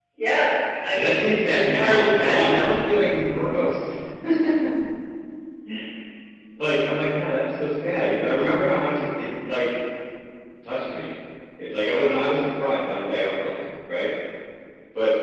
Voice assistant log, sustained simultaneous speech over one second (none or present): present